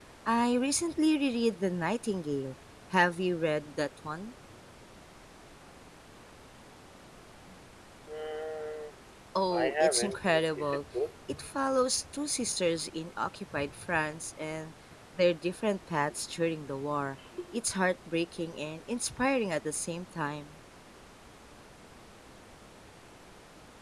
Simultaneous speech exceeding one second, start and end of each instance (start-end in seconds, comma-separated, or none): 9.5-10.8